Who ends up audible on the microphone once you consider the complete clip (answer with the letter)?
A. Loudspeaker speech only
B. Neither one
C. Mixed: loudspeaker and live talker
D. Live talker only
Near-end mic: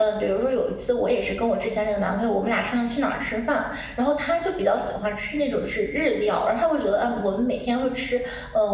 D